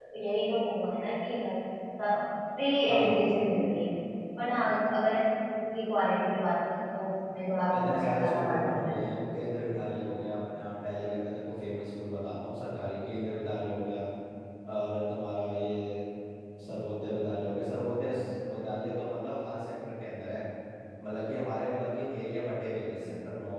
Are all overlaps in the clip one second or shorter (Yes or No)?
No